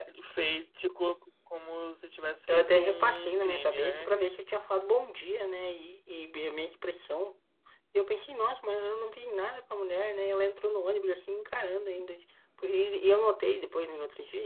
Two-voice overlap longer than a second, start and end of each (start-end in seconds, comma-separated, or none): 2.5-4.1